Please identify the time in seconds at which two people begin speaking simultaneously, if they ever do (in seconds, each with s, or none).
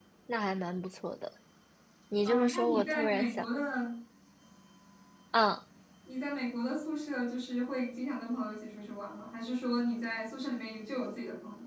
2.2 s